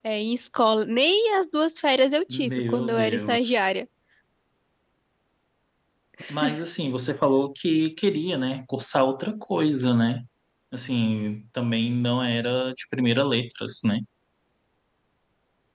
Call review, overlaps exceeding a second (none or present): present